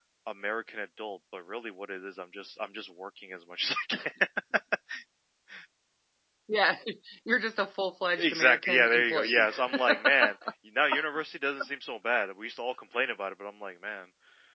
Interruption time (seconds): 8.2 s

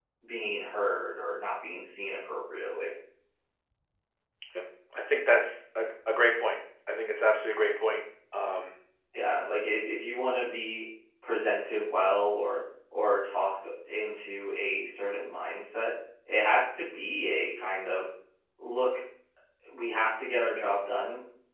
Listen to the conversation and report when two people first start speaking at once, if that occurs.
none

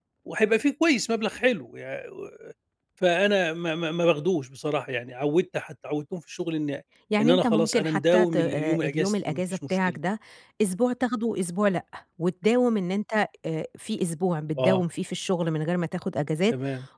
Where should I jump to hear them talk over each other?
7.2 s

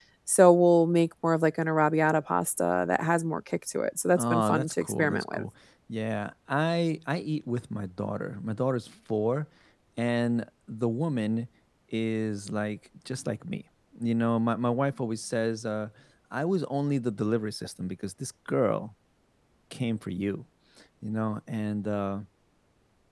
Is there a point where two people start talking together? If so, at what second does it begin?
4.2 s

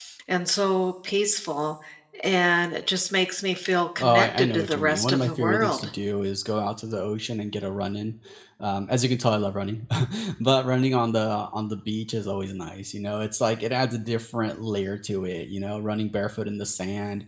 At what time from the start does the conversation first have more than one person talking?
4.0 s

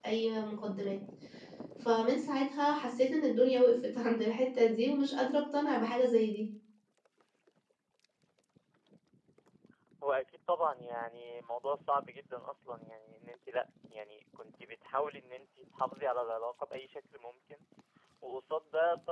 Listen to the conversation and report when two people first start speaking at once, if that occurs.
none

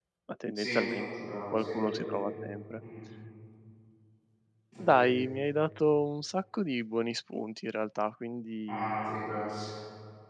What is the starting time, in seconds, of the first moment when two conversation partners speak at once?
0.6 s

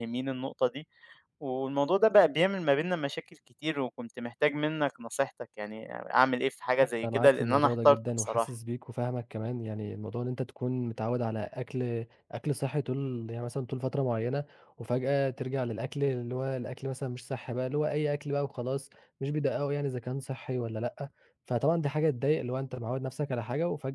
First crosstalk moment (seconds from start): 6.8 s

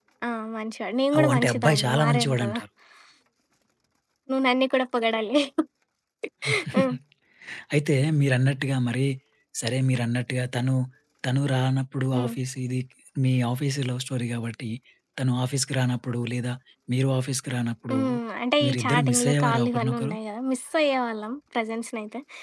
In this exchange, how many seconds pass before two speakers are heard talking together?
1.2 s

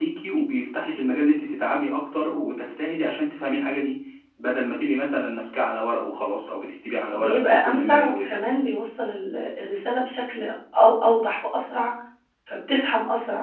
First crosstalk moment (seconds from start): 7.1 s

